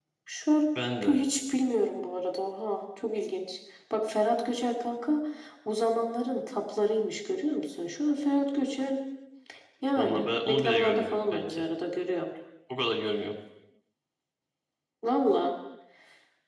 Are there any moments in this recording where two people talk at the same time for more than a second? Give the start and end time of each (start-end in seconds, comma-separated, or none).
10.0-11.6